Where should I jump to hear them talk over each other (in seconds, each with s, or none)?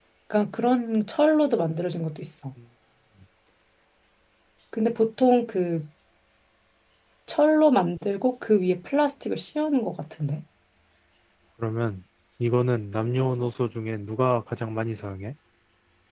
none